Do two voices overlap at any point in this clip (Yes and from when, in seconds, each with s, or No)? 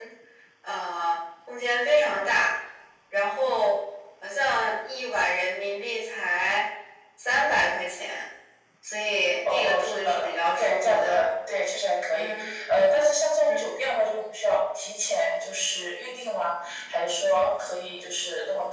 Yes, from 9.4 s